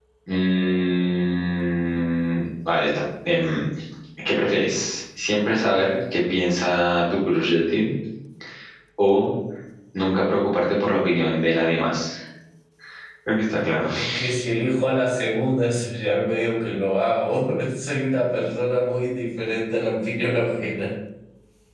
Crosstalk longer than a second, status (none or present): none